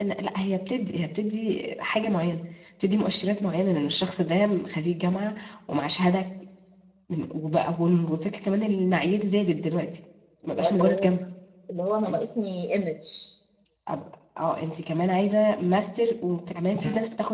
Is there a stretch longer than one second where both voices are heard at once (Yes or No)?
No